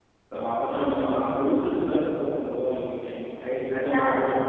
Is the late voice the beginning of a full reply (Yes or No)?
No